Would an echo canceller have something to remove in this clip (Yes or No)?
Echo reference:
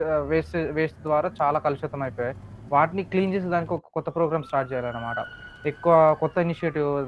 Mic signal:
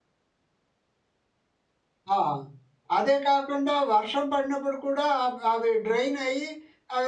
No